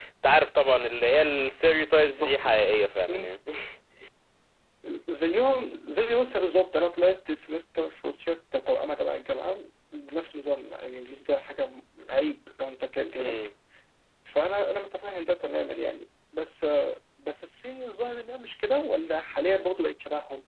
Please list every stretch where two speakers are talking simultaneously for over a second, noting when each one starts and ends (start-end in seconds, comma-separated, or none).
none